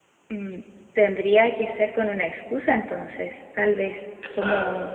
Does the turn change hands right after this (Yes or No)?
Yes